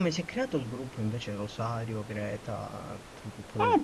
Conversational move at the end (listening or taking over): taking over